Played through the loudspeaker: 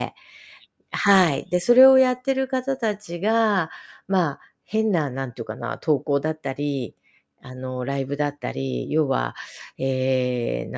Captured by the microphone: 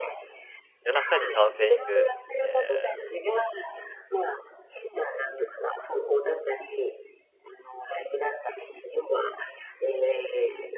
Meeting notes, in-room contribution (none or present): present